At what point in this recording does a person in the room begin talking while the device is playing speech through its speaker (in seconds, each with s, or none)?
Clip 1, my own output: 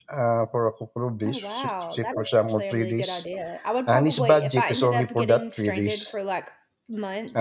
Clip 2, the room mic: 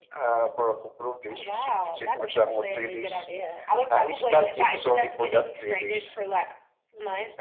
none